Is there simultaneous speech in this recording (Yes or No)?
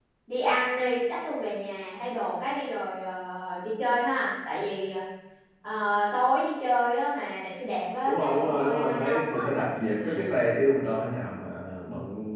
Yes